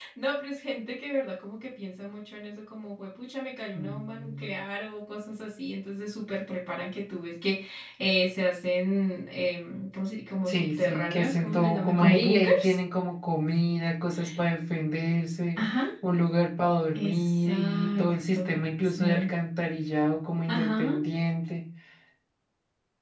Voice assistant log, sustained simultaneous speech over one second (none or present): present